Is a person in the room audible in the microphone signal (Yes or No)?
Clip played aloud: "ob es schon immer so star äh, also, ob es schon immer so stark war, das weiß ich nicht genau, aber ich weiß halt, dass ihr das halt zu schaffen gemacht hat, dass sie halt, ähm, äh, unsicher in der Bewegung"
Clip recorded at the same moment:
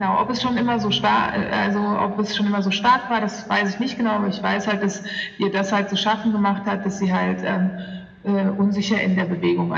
No